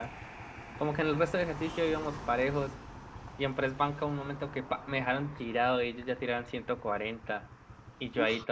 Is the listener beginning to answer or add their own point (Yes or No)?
No